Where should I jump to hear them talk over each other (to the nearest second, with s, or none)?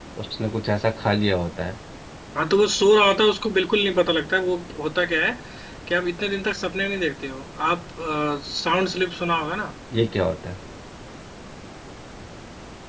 none